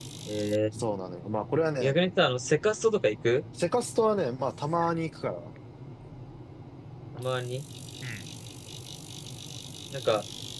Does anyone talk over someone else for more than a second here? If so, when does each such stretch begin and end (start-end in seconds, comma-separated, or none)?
none